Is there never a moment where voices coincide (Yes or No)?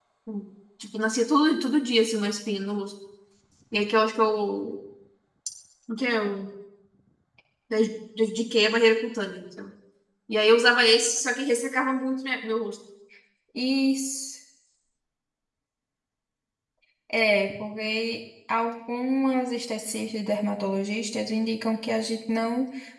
Yes